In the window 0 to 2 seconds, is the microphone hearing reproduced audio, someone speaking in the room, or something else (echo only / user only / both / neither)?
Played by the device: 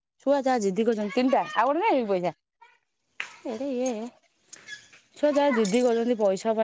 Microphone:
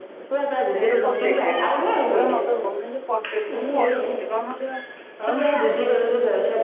both